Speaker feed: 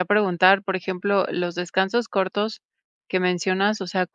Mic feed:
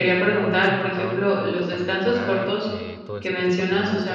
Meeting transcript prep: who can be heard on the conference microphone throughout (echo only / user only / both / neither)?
both